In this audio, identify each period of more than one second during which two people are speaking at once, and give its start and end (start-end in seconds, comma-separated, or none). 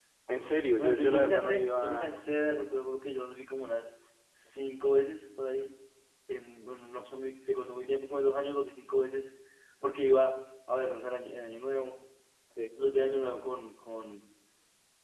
0.7-2.2